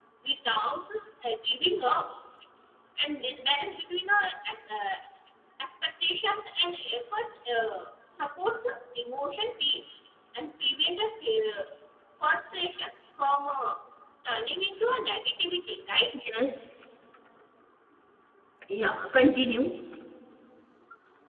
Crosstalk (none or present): none